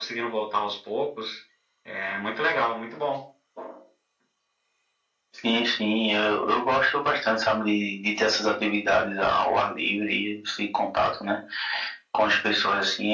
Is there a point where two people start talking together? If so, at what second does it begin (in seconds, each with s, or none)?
none